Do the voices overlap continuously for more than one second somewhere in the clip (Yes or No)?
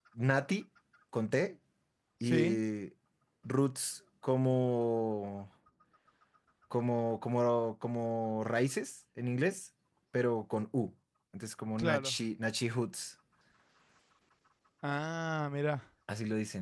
No